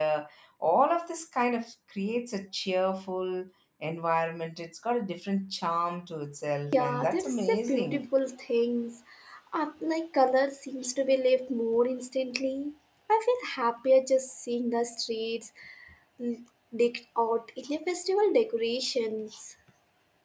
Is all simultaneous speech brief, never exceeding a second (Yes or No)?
No